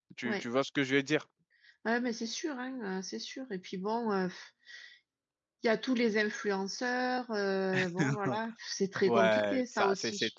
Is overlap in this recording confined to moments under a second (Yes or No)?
No